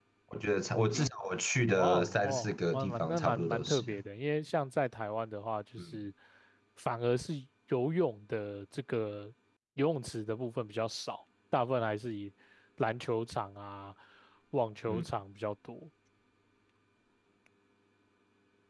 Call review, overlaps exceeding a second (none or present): present